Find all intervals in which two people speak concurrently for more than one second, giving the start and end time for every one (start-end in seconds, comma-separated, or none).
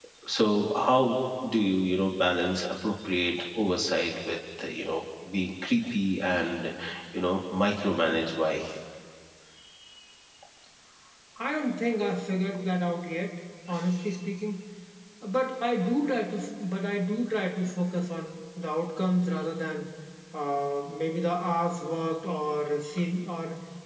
none